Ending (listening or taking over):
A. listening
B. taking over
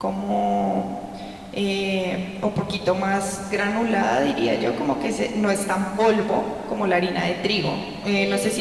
A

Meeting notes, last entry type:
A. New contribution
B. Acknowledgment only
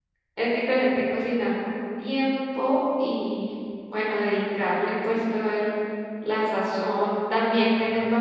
B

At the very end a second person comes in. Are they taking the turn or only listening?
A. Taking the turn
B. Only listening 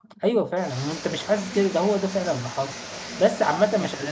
A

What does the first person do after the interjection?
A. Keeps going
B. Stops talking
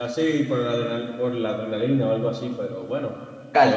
B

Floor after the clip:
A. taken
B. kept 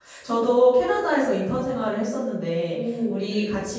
B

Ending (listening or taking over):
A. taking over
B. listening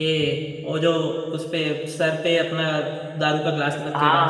A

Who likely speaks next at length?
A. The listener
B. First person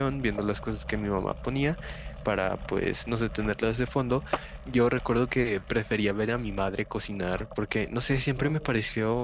B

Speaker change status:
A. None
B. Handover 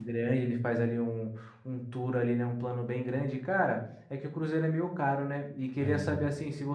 A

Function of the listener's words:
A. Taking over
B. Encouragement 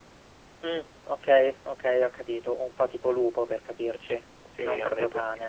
A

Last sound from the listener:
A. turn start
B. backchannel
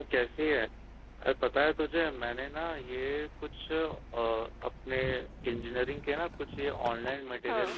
B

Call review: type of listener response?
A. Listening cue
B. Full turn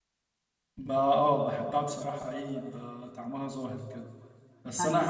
A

